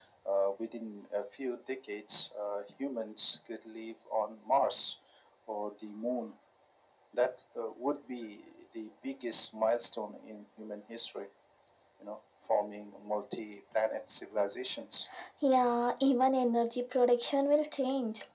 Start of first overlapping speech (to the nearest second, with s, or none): none